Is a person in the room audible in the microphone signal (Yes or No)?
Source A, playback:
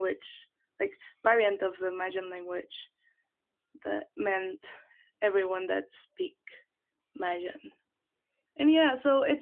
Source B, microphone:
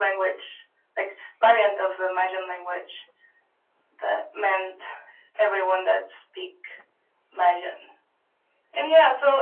No